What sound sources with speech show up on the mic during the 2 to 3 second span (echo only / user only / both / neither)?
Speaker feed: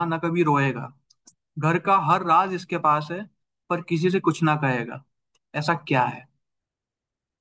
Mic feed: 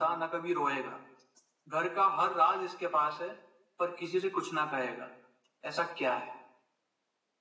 echo only